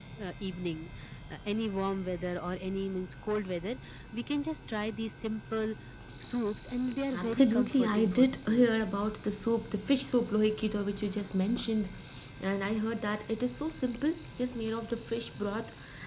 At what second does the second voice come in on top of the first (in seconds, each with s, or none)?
7.1 s